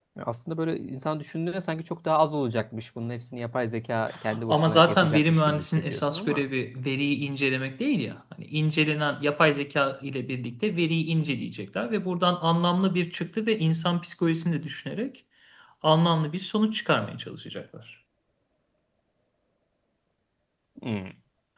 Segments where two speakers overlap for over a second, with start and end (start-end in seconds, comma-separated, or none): 4.5-6.4